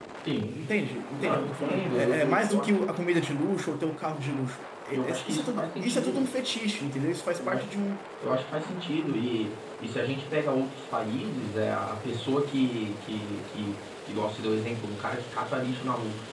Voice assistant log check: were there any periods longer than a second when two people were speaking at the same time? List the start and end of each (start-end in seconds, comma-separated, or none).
1.2-2.7, 4.9-6.2